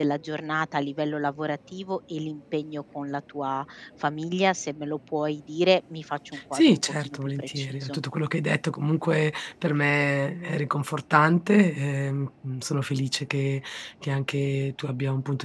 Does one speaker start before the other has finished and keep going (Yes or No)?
Yes